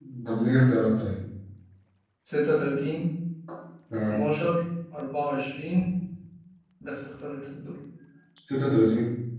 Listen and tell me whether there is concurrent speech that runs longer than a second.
No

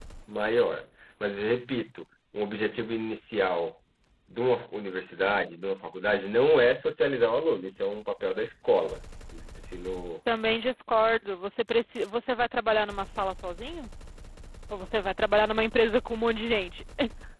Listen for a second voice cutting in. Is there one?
No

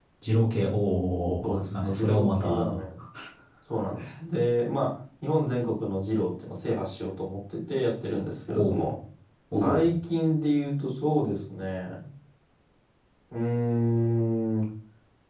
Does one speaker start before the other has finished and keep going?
Yes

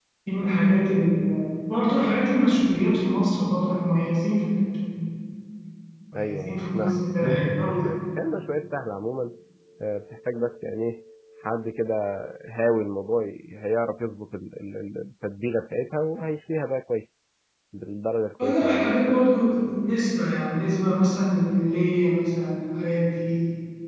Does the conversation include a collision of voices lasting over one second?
Yes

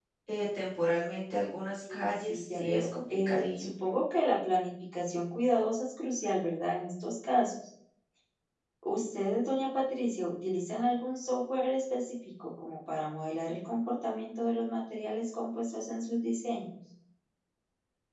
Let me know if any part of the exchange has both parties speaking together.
Yes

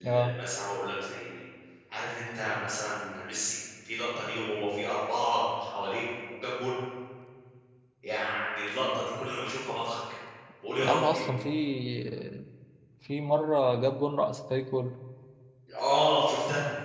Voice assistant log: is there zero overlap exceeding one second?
Yes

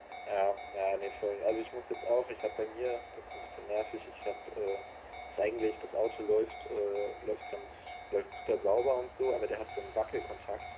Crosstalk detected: No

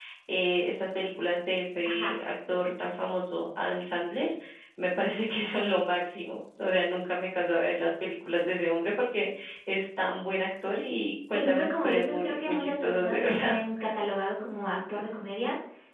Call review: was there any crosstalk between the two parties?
Yes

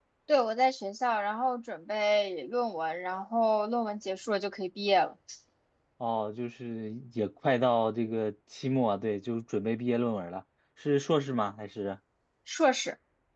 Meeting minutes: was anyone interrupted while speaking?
No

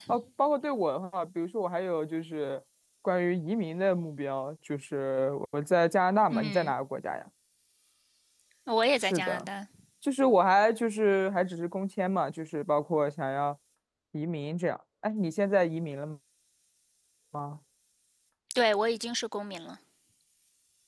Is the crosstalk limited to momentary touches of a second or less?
Yes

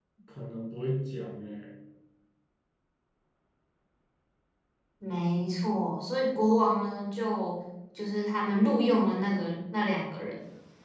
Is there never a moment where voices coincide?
Yes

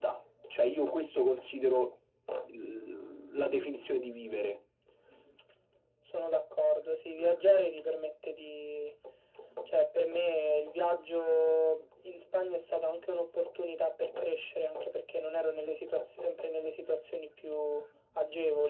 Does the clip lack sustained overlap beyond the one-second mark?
Yes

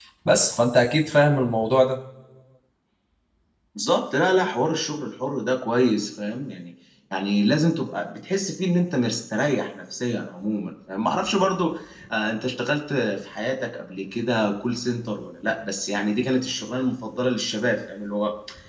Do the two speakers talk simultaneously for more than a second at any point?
No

